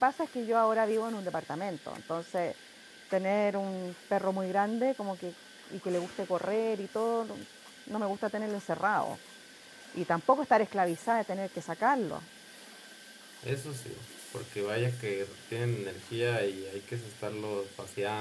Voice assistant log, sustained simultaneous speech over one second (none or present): none